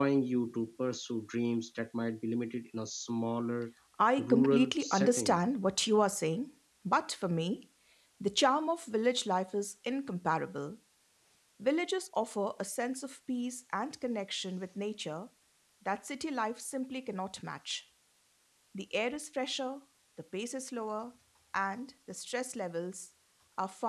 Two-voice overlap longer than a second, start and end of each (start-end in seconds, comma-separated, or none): 4.2-5.4